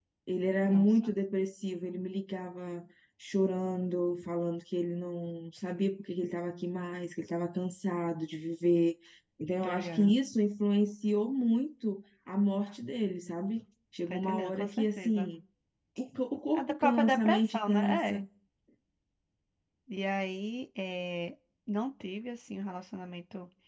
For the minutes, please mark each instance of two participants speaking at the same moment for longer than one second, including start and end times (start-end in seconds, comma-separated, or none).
14.1-15.3, 16.5-18.2